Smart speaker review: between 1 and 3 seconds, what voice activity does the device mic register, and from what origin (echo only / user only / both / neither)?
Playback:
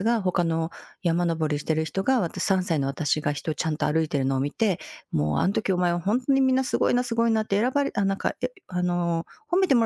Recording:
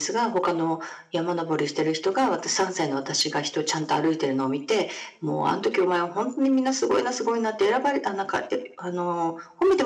echo only